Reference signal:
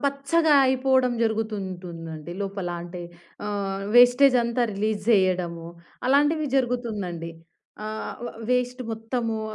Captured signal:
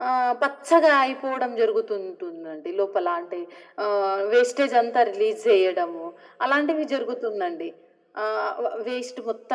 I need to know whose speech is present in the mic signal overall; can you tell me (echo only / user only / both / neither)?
echo only